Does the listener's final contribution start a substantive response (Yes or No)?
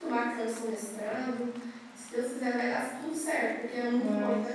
No